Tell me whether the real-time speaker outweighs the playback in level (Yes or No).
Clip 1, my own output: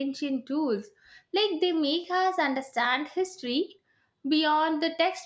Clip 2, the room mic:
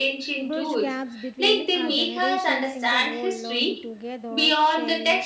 No